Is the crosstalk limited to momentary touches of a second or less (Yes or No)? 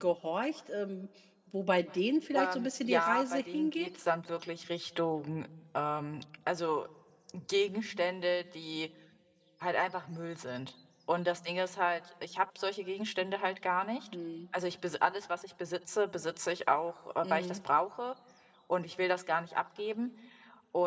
No